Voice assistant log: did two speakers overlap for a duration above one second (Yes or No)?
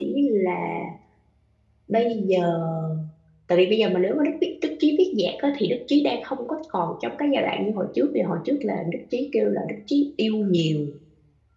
No